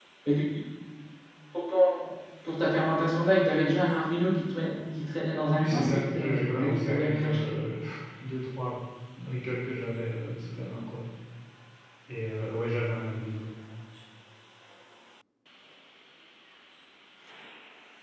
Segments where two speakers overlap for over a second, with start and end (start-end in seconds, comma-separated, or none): 5.5-7.5